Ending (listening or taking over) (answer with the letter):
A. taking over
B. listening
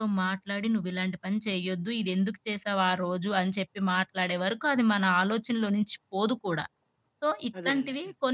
B